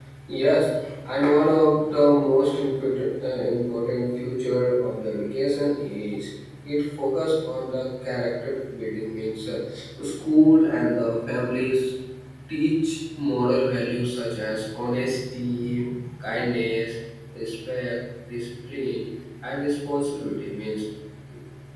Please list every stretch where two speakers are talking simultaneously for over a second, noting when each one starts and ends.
none

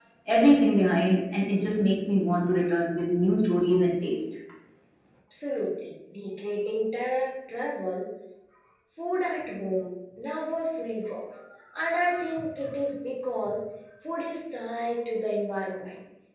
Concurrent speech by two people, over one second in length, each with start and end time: none

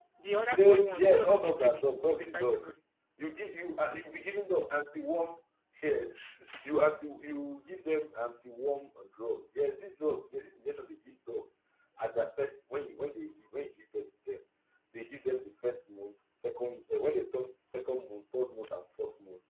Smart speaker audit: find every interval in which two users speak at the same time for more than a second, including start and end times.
0.6-2.7

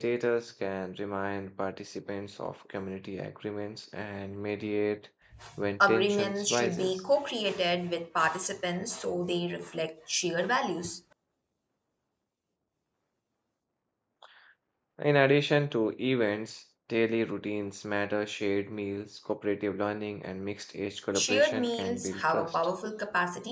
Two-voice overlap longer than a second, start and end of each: 5.8-7.0, 21.1-22.6

